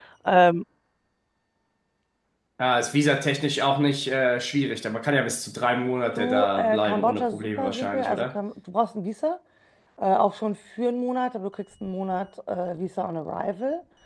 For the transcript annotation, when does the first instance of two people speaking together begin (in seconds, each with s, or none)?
6.2 s